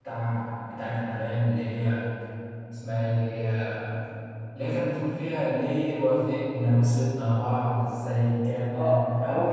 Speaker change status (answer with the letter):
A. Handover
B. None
A